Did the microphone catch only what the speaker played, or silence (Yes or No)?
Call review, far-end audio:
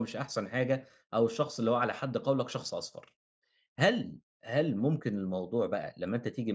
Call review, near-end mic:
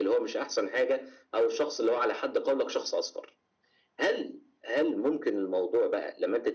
Yes